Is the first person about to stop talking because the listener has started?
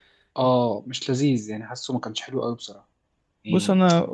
Yes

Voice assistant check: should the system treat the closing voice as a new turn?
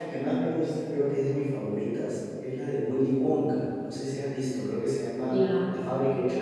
Yes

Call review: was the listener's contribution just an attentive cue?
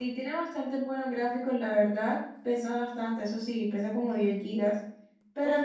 Yes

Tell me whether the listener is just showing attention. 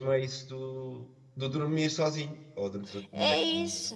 No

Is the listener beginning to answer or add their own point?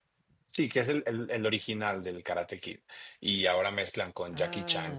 No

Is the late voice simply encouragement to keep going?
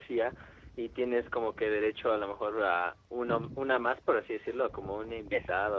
No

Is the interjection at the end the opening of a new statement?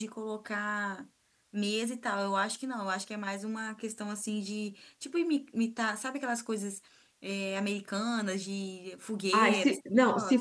Yes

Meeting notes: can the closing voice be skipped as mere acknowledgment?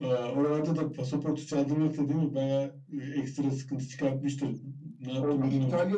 No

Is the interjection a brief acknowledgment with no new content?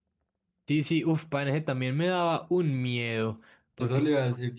No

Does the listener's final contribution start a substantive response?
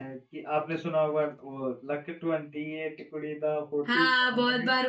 Yes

